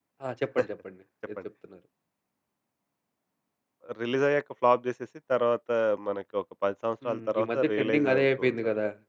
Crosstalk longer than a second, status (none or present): present